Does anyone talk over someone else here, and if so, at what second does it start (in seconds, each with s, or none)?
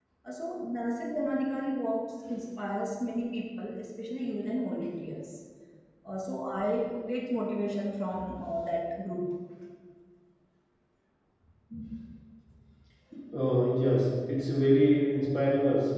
none